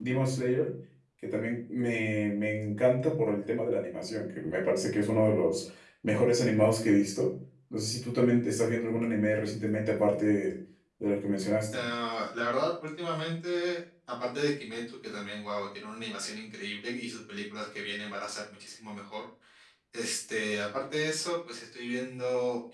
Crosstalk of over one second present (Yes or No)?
No